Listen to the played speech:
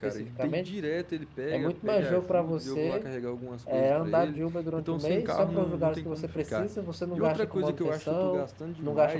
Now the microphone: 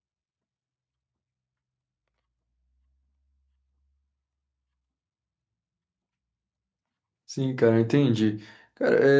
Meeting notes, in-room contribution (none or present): present